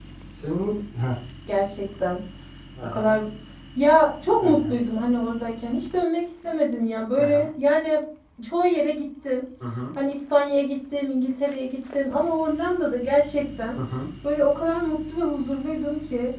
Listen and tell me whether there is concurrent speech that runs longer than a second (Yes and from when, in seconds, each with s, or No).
No